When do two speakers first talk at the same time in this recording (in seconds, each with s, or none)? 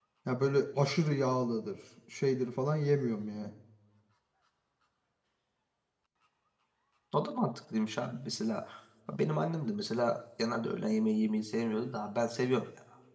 none